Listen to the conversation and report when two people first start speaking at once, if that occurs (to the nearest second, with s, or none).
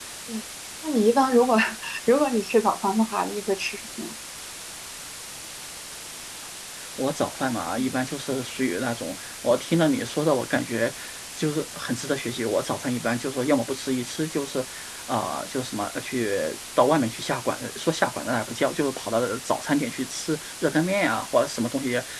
none